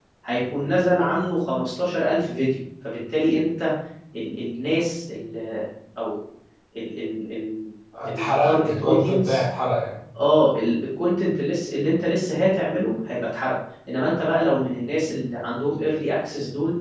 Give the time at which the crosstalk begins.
7.9 s

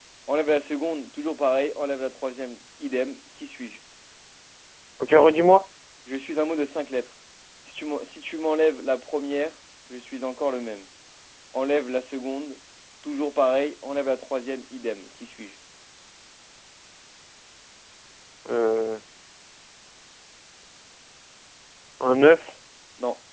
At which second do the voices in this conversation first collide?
none

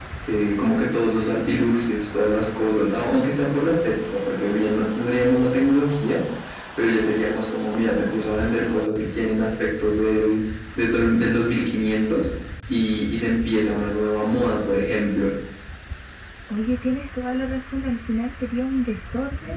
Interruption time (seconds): none

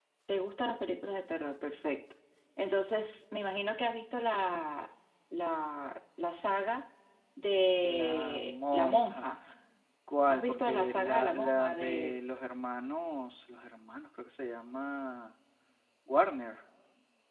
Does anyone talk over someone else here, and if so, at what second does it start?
7.8 s

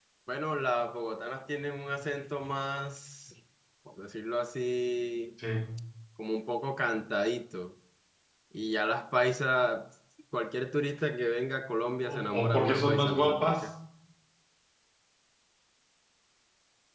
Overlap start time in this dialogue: 12.0 s

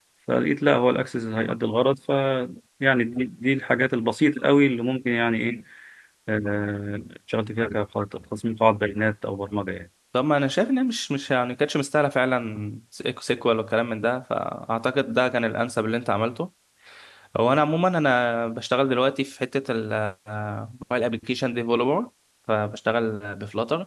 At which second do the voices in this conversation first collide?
none

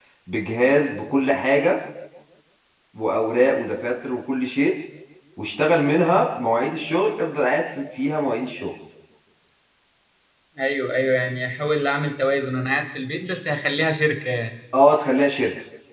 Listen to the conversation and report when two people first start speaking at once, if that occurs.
none

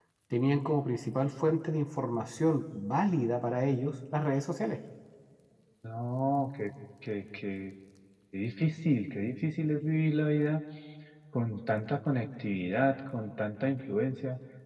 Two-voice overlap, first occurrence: none

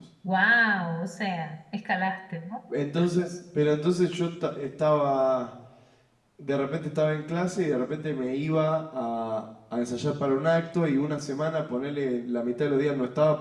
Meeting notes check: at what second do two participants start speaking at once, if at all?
none

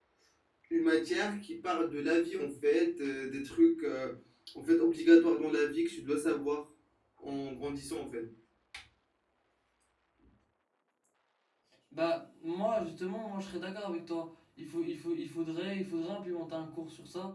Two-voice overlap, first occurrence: none

